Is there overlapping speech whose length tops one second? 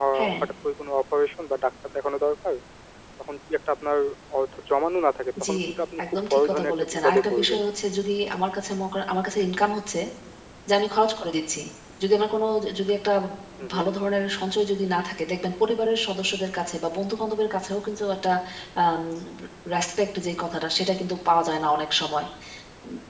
Yes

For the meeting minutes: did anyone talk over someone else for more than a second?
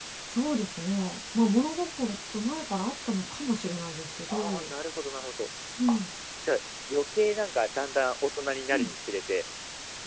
No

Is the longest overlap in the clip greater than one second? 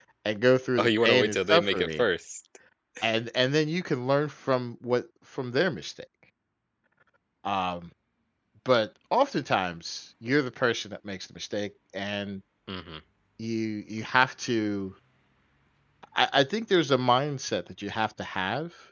Yes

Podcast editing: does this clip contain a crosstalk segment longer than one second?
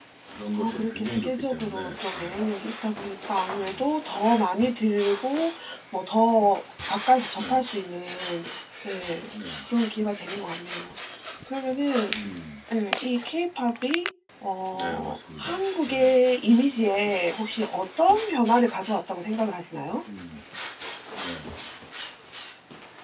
Yes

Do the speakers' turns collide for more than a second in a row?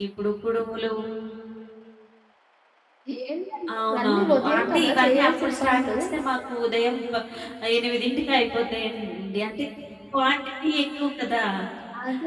Yes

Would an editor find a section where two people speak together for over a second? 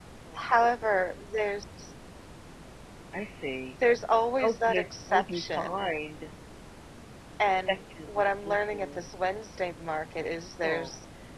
Yes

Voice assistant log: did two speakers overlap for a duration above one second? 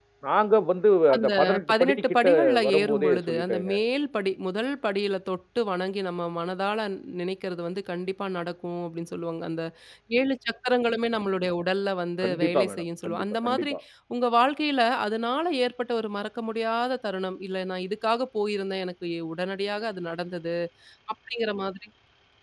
Yes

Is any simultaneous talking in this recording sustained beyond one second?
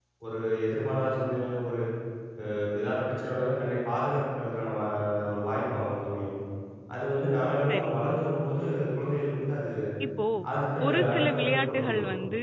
Yes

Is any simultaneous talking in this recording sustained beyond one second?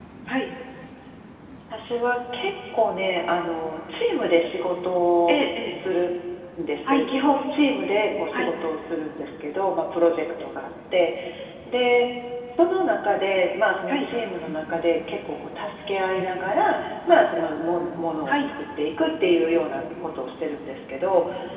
No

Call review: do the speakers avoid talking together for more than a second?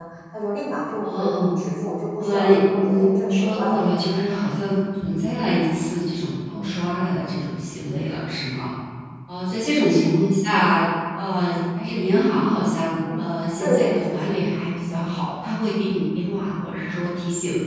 No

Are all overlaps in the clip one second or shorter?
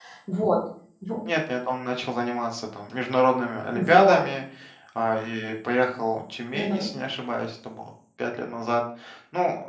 Yes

